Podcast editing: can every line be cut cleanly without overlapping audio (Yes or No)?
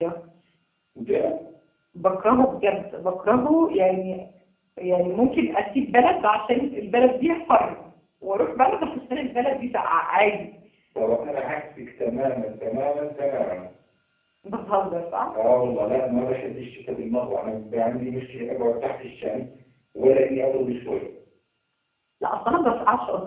Yes